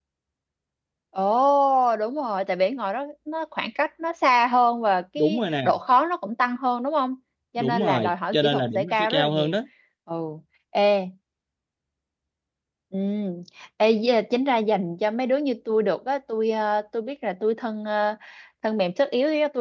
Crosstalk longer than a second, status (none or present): present